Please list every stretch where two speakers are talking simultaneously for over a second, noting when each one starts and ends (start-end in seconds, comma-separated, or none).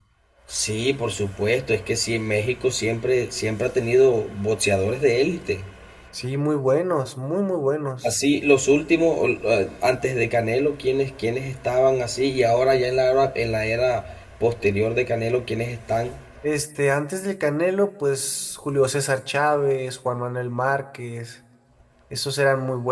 none